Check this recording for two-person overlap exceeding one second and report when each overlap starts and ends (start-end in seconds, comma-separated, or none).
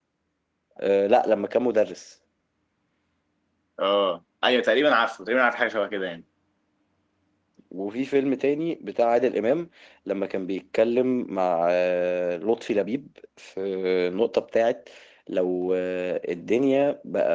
none